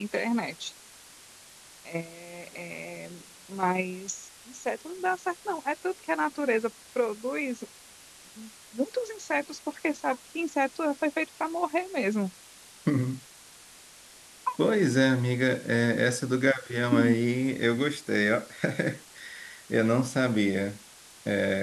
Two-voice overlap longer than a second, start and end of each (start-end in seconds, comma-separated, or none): none